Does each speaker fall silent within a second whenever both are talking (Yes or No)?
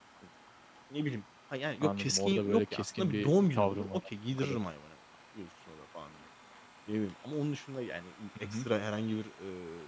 No